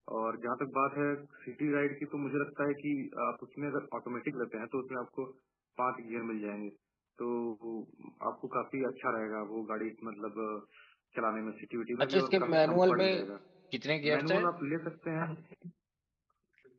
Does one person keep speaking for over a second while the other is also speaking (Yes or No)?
Yes